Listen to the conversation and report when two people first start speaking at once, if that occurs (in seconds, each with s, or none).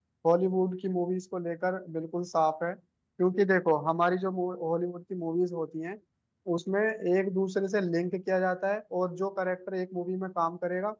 none